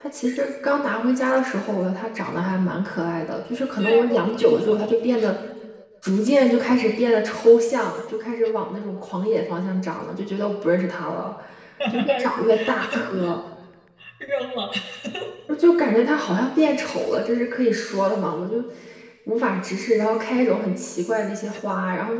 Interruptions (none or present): present